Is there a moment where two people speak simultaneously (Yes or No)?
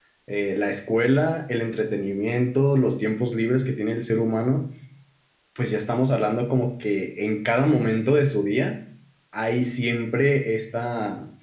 No